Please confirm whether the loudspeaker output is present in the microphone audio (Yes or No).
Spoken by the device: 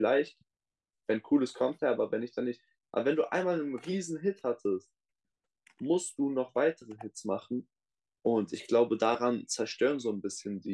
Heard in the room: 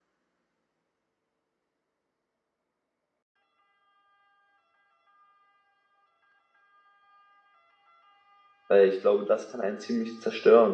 No